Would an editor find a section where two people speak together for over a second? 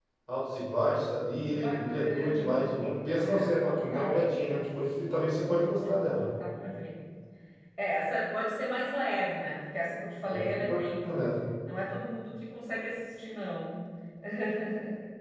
Yes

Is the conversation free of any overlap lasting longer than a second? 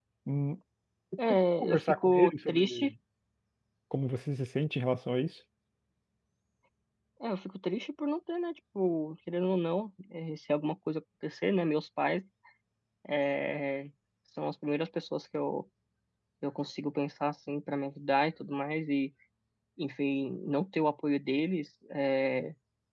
No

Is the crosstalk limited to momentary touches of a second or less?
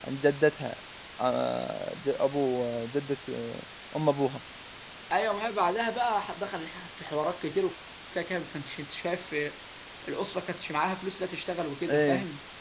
Yes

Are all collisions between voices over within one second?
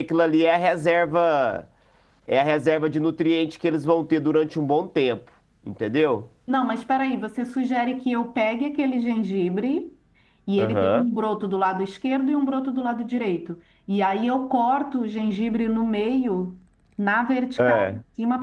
Yes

